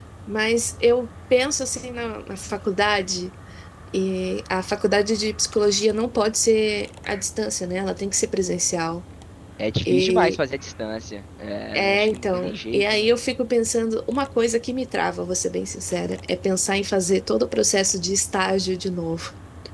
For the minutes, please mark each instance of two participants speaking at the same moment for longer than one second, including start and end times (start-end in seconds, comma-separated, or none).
11.7-13.1